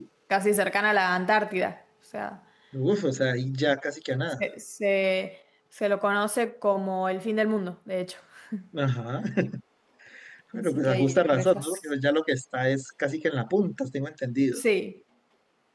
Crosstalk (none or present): present